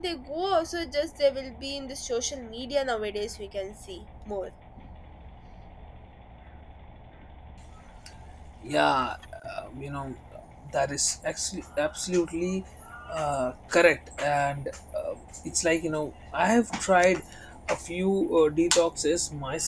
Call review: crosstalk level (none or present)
none